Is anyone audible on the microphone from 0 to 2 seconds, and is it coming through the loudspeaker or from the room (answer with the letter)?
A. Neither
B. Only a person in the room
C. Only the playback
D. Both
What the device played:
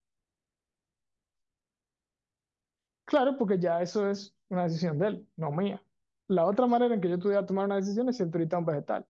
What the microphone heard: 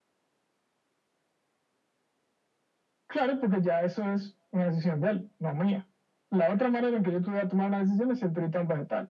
A